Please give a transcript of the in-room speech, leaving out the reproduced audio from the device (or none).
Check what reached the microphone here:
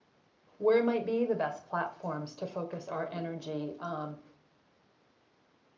where might be the best platforms to focus our energy um,